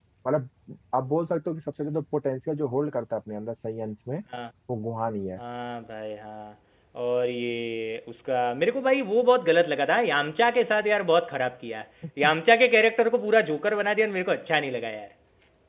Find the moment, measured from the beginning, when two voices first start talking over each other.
none

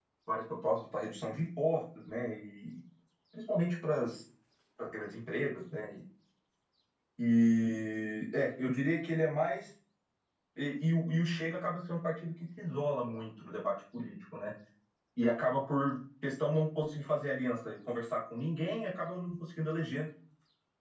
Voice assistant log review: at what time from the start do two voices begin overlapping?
none

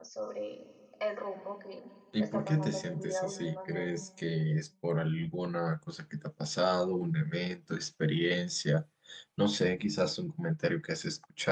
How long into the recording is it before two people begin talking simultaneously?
2.1 s

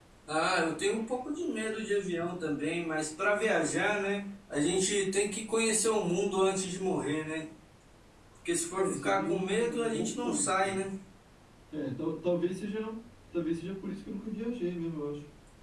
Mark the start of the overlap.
8.7 s

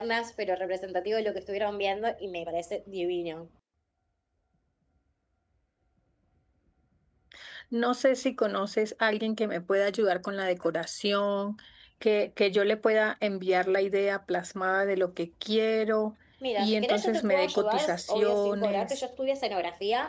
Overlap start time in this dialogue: 16.6 s

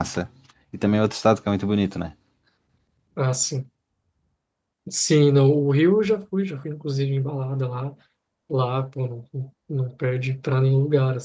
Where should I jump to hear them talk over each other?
none

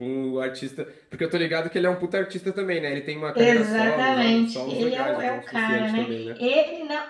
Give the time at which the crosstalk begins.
3.4 s

